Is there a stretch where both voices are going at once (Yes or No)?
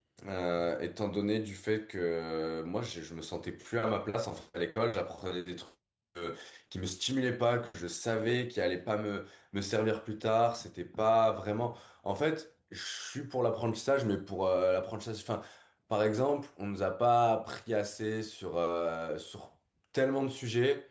No